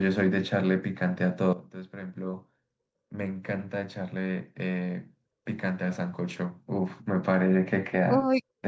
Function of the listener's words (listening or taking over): taking over